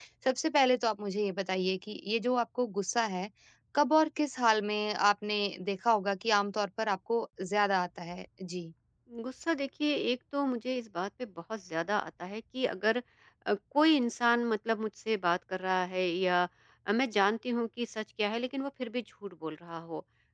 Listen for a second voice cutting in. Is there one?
No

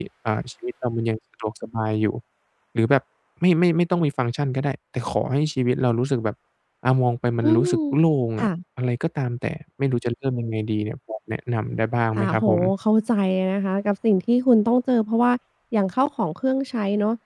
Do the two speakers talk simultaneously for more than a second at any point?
No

